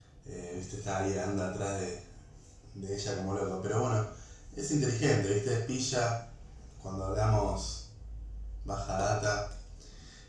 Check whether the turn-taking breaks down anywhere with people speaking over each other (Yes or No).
No